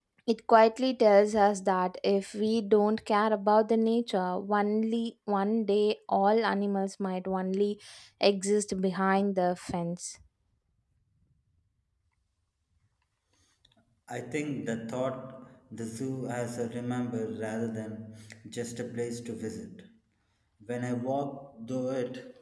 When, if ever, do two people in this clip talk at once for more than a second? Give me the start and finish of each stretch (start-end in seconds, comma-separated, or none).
none